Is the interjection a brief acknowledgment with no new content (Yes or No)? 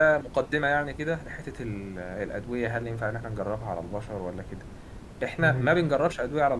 Yes